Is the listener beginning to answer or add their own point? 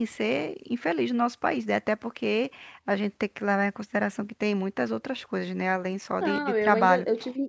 Yes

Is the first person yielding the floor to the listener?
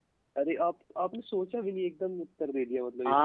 Yes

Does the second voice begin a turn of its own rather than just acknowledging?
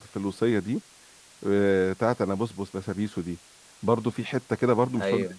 No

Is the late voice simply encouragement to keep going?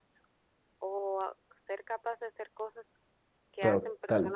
No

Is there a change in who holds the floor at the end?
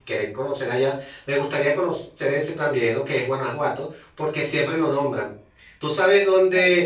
No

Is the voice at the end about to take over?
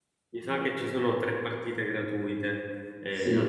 Yes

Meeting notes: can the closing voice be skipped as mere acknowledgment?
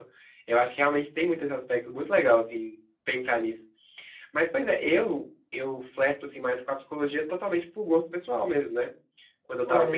Yes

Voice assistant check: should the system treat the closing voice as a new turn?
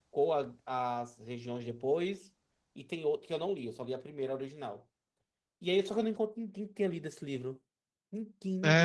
Yes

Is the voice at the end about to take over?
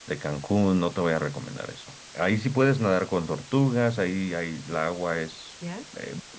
No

